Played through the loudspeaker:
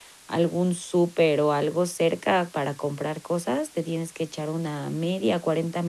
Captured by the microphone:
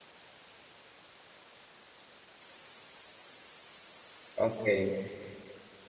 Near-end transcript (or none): Okey.